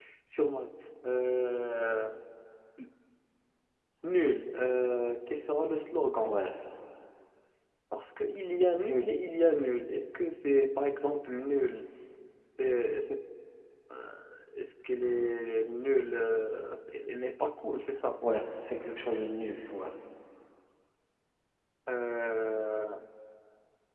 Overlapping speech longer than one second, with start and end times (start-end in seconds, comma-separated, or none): none